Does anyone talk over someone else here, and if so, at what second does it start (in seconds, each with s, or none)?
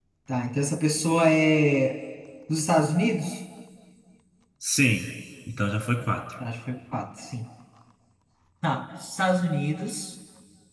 none